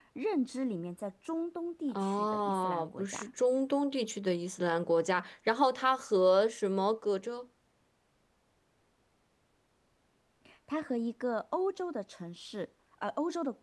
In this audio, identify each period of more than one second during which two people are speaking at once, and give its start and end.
1.9-3.3

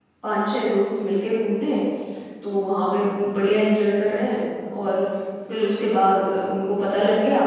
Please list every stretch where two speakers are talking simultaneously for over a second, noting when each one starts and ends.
none

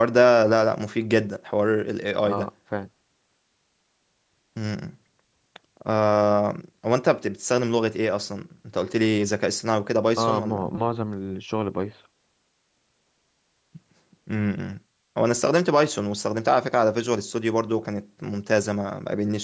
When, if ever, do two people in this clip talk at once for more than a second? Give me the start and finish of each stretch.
none

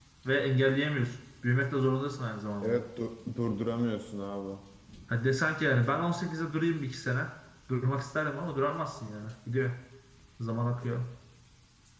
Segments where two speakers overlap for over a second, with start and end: none

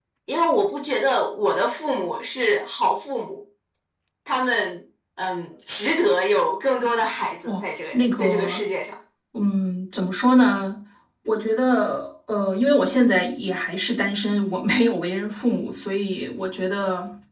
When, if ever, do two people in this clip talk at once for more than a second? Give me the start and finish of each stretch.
7.5-8.7

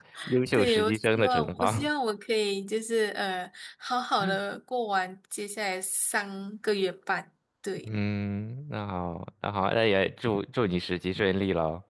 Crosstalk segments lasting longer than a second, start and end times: 0.5-1.9

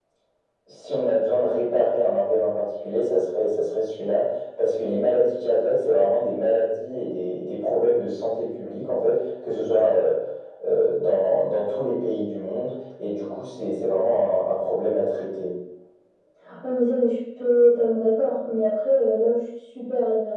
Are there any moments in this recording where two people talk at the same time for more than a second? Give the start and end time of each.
none

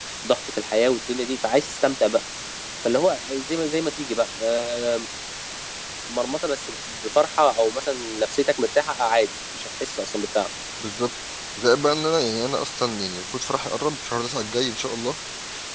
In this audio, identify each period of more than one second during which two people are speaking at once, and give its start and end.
none

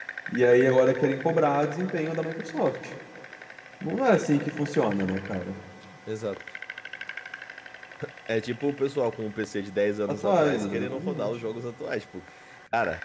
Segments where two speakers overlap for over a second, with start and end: 10.1-11.4

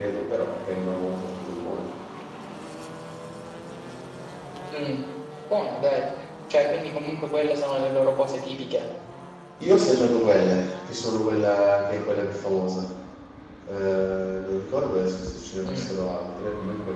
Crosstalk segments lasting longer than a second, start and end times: none

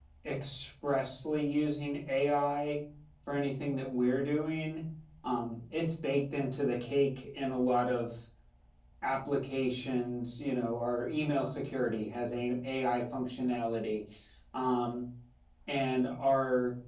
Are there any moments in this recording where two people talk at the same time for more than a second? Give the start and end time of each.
none

